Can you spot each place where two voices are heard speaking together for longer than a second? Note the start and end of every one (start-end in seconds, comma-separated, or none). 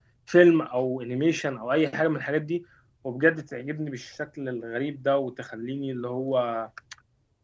none